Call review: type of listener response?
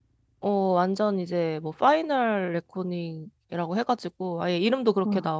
listening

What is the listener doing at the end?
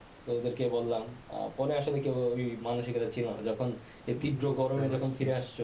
listening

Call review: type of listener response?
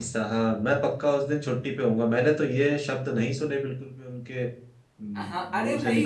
taking over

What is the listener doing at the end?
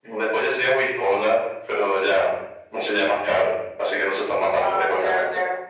taking over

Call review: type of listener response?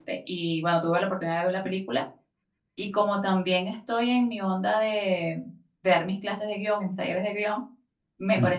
listening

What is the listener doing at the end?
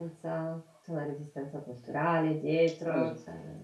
taking over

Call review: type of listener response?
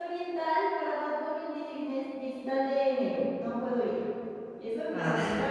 taking over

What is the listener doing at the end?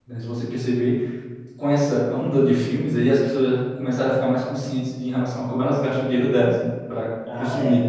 listening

